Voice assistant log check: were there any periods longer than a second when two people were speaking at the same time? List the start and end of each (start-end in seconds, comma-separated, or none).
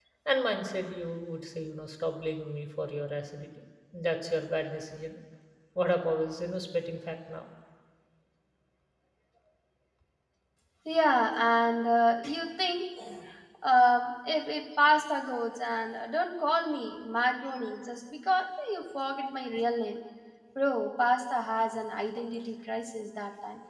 none